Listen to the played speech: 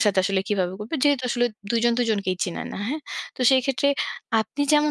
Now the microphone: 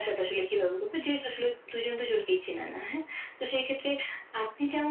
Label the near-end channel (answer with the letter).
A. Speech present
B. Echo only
B